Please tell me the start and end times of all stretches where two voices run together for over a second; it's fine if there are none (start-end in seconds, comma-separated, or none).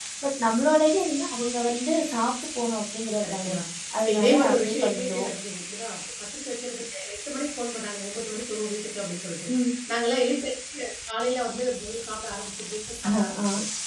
4.0-5.3